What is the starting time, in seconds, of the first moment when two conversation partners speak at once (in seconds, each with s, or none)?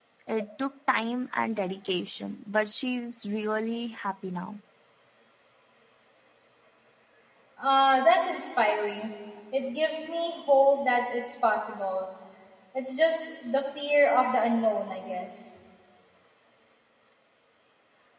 none